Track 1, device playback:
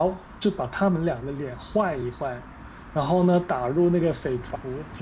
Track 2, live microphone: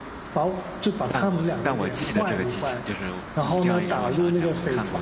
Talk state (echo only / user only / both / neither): both